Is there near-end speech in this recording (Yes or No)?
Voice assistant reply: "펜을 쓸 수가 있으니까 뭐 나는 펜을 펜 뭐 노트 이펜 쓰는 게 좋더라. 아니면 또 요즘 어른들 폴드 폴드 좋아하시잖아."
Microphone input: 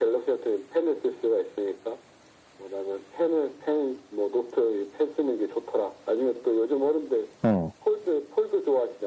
Yes